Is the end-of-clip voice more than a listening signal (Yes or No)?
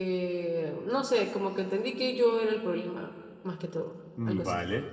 Yes